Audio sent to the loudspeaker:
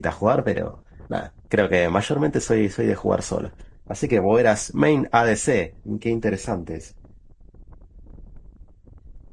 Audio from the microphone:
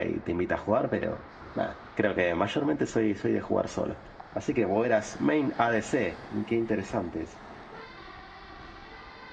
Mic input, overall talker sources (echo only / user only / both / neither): echo only